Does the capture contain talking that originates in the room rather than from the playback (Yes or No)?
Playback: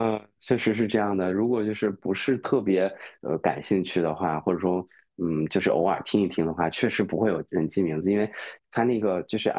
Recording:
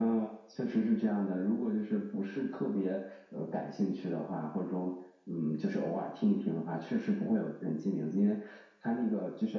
No